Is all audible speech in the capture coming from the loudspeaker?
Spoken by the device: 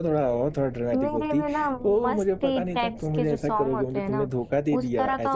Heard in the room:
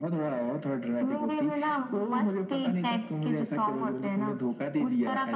Yes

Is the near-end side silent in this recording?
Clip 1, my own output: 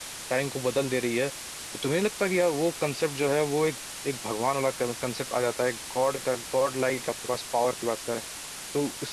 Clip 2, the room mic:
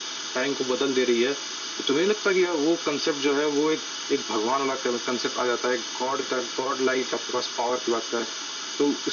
Yes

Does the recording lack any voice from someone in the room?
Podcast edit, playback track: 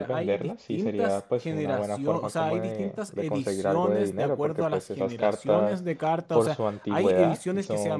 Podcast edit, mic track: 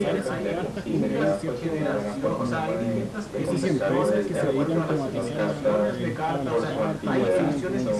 No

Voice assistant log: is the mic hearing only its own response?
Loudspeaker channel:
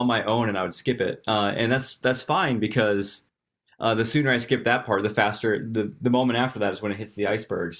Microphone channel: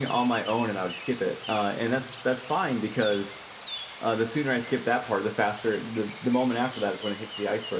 Yes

